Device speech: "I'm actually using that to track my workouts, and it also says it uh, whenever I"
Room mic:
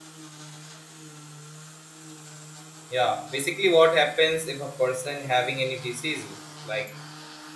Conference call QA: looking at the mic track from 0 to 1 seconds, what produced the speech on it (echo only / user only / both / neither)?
neither